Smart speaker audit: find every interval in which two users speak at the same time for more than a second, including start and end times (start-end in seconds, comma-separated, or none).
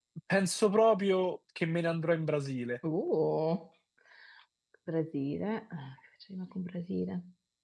none